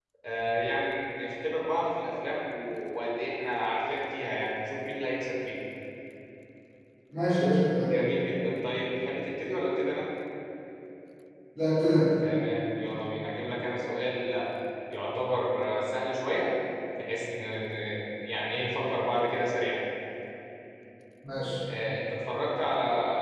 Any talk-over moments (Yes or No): No